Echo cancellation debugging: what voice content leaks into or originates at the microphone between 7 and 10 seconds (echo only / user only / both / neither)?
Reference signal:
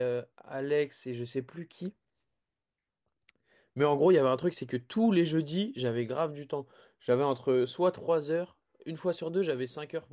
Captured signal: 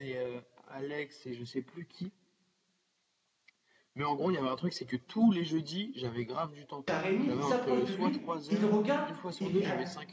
both